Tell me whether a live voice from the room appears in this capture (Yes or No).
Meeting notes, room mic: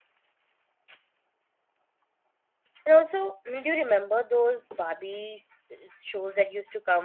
Yes